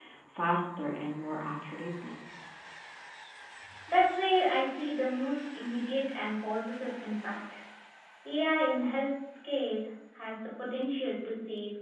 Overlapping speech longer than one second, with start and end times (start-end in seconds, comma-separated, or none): none